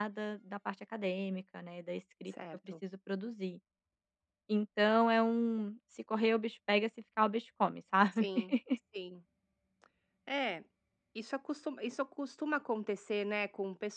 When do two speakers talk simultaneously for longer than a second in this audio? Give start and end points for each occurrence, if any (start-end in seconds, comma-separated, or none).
none